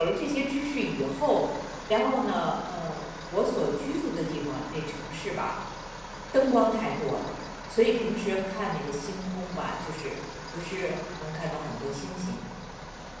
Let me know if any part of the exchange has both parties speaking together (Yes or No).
No